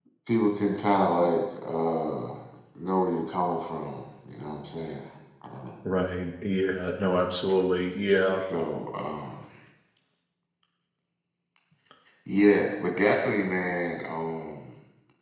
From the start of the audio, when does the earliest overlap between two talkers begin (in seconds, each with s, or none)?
none